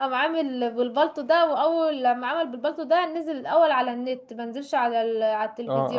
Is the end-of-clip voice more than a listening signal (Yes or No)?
Yes